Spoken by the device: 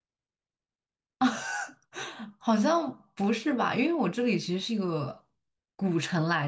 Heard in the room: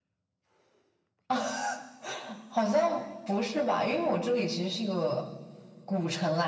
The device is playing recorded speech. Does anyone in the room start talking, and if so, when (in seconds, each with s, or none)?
none